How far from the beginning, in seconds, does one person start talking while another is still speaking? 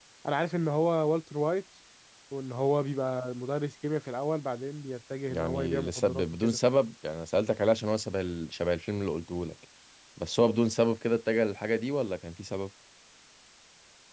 5.3 s

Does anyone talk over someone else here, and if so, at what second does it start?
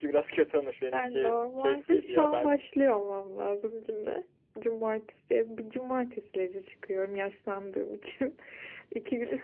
0.9 s

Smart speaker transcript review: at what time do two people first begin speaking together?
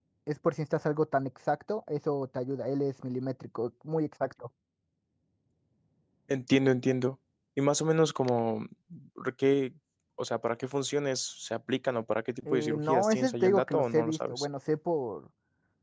12.4 s

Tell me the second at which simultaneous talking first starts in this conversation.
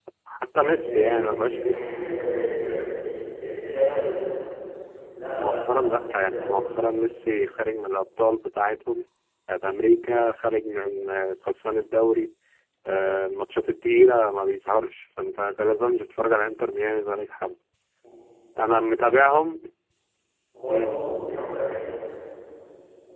0.6 s

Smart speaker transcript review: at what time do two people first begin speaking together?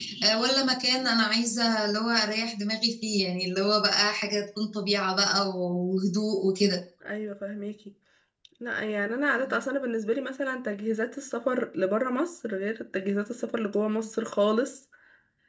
none

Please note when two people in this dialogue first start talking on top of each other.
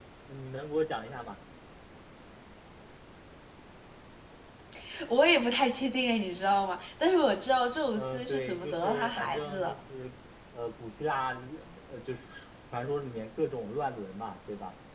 8.0 s

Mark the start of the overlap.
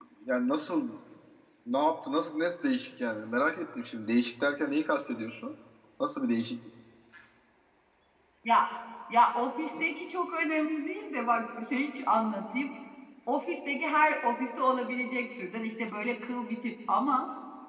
none

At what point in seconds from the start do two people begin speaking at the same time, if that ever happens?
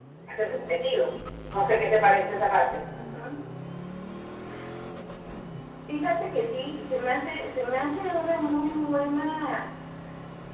none

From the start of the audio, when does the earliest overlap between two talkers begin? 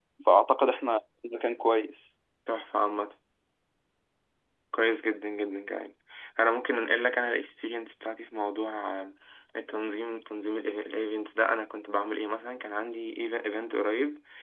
none

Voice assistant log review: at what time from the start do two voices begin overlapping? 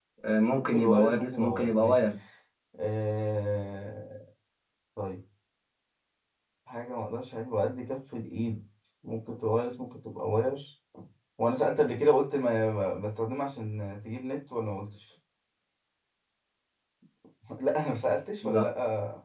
0.6 s

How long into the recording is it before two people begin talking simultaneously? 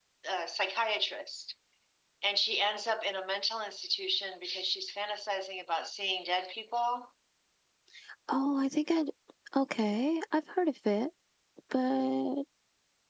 none

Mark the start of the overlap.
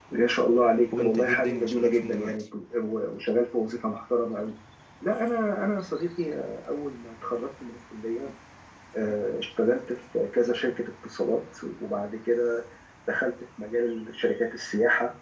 1.0 s

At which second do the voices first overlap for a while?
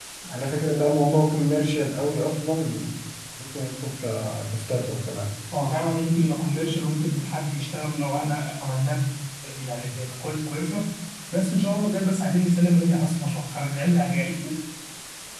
none

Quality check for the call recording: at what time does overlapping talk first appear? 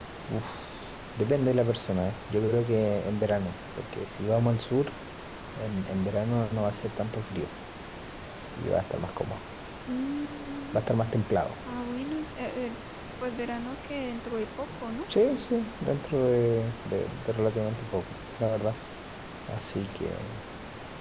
none

